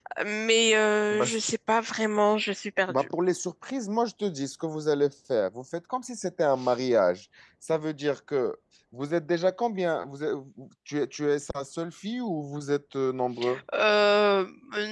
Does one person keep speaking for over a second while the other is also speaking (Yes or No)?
No